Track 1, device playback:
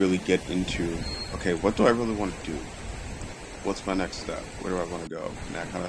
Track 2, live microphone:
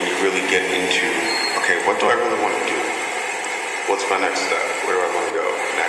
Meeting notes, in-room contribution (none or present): none